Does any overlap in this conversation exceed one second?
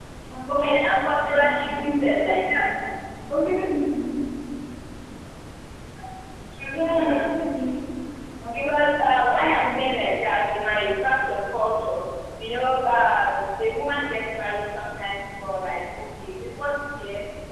Yes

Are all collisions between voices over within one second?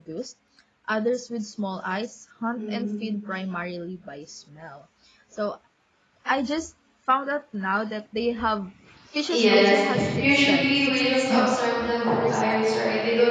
No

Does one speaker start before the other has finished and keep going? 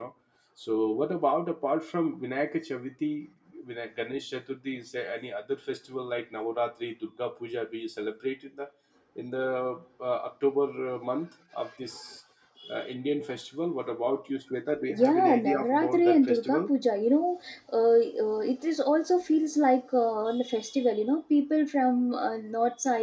Yes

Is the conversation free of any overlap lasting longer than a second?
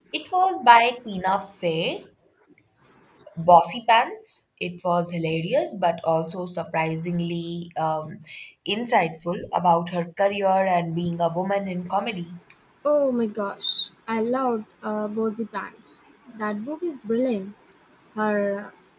Yes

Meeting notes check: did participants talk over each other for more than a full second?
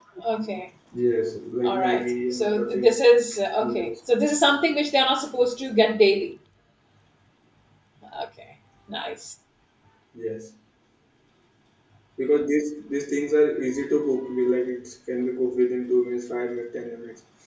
Yes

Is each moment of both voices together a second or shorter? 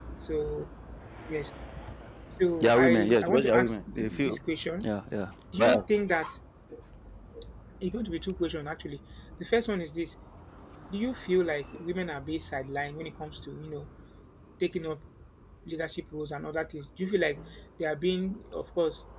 No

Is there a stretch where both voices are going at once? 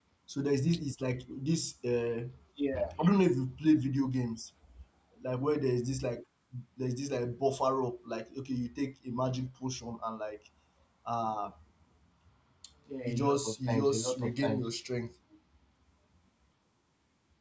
Yes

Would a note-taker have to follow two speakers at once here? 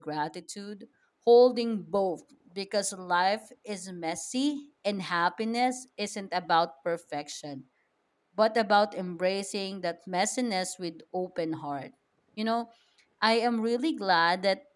No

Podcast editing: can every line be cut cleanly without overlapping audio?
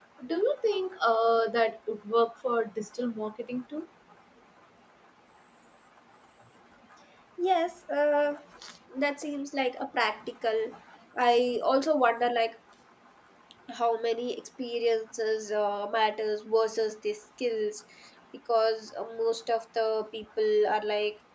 Yes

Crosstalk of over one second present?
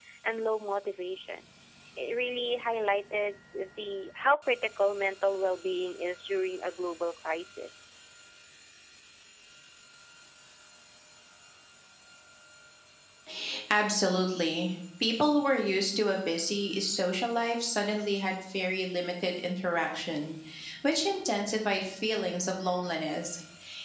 No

